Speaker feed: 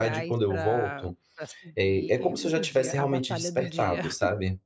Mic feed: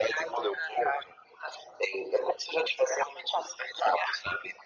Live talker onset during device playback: none

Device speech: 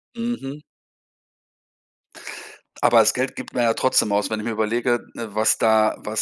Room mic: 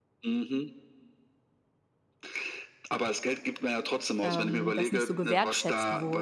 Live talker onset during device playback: 4.2 s

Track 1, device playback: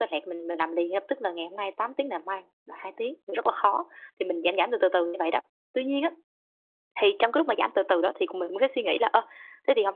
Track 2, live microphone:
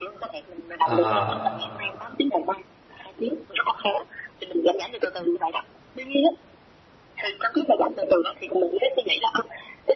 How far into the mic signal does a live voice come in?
0.8 s

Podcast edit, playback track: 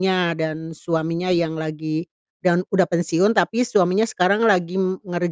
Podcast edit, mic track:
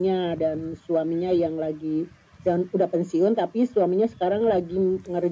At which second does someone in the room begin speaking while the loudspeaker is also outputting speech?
none

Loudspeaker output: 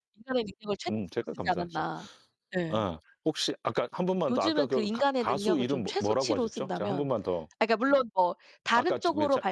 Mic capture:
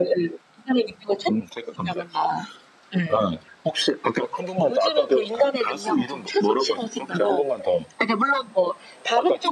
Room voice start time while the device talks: none

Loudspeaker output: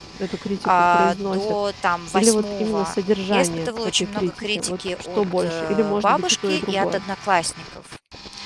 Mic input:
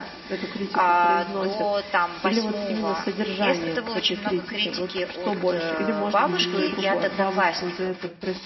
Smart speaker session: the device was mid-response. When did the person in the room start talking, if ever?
6.2 s

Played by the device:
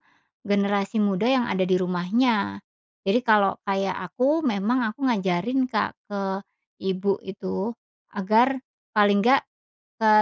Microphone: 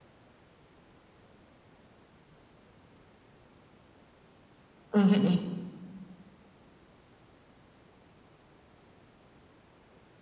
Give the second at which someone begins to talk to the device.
4.9 s

